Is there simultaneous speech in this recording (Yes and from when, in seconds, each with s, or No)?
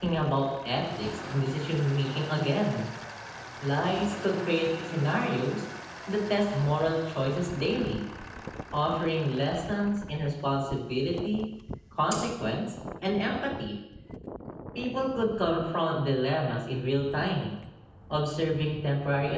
No